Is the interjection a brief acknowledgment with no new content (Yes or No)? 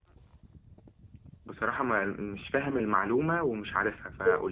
No